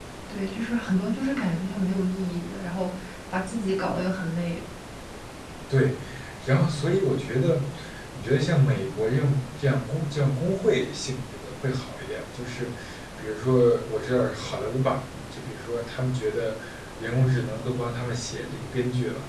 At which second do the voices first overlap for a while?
none

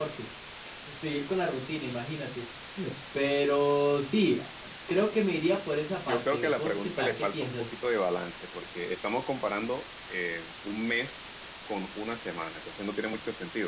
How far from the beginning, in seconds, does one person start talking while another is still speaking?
6.1 s

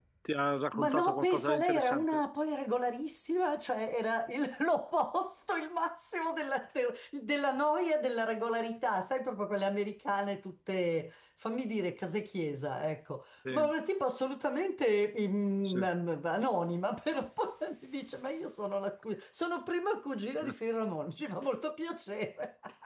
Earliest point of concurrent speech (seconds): 0.8 s

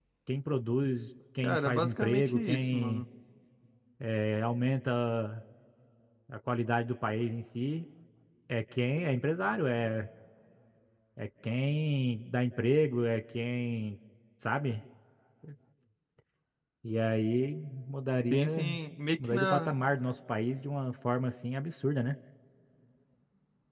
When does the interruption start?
1.4 s

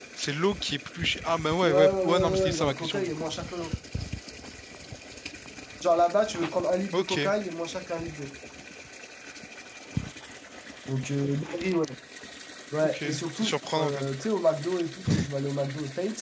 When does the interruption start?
1.6 s

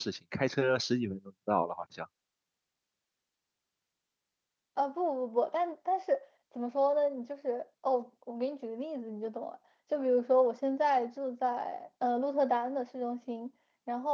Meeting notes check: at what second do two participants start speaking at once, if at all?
none

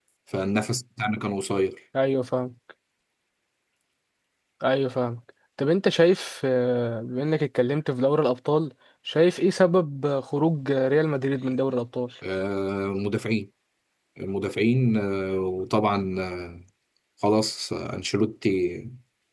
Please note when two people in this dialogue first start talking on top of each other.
none

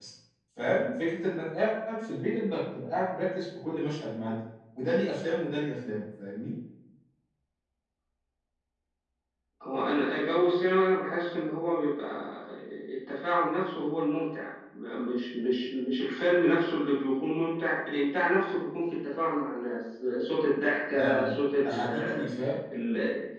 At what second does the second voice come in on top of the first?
20.9 s

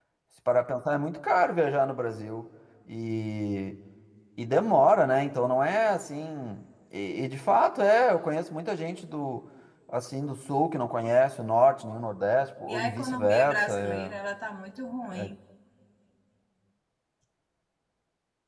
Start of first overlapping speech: 12.7 s

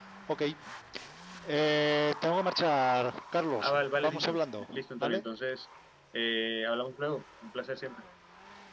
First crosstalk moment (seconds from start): 3.6 s

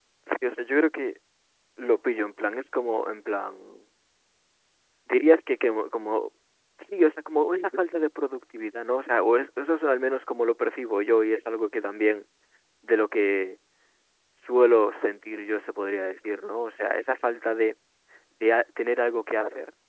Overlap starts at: none

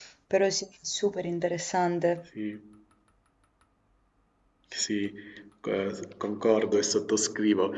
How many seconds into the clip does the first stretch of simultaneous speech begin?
none

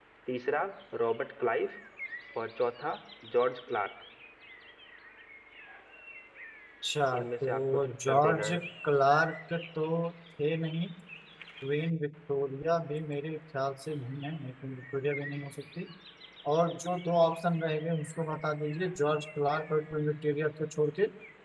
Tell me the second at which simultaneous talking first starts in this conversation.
7.2 s

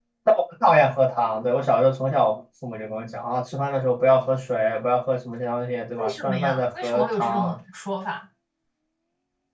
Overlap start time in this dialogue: 6.0 s

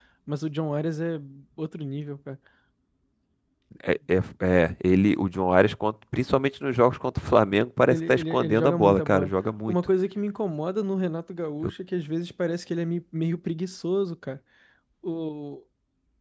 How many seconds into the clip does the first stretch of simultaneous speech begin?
7.9 s

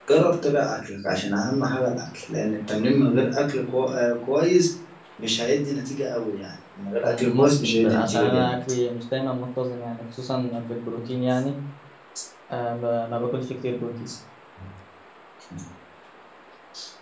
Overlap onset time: 7.0 s

